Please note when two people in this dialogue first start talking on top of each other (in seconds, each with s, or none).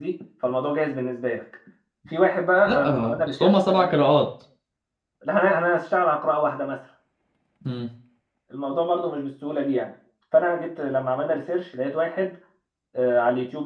2.7 s